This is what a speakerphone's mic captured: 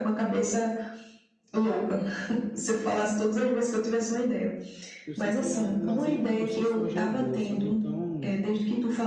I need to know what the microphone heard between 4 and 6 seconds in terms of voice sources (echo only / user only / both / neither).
both